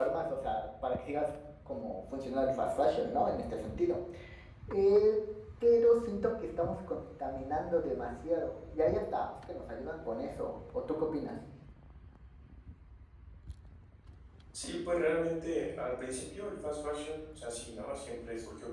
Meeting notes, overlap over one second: none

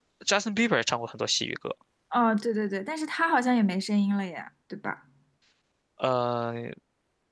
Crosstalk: none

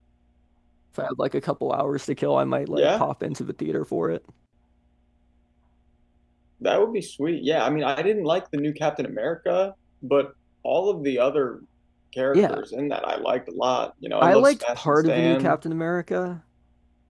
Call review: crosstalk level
present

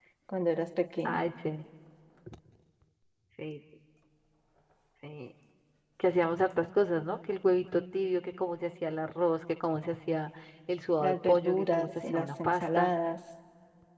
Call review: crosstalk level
present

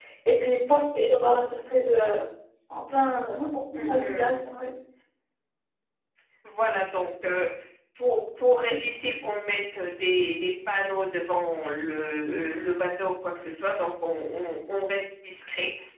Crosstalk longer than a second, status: none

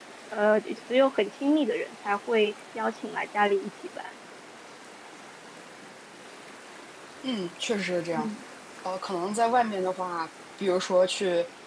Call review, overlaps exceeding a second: none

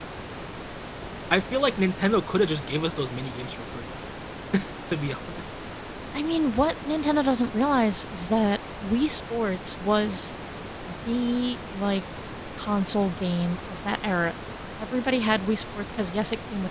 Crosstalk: none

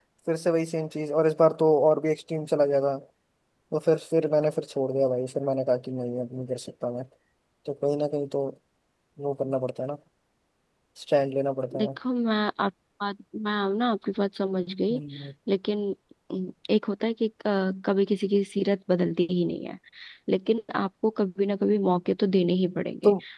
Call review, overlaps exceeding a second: none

